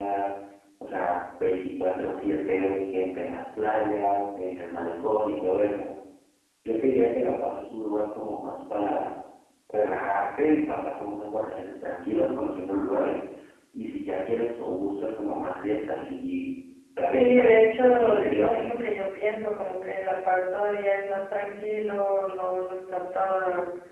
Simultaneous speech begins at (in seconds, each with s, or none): 17.1 s